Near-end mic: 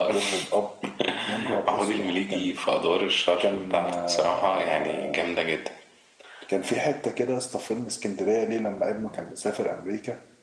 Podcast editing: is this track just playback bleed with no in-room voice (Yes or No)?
Yes